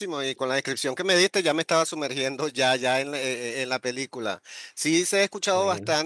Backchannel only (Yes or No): Yes